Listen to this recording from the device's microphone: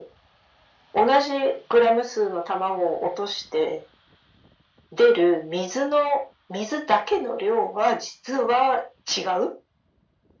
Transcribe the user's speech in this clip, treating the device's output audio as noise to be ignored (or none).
none